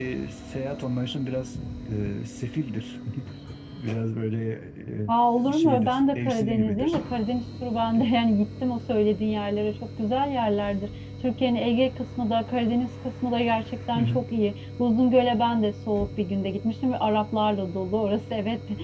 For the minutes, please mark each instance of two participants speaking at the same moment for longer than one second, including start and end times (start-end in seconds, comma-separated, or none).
5.5-7.0